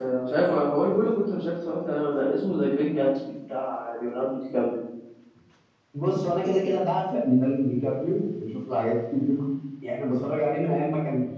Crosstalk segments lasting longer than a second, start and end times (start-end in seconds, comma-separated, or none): none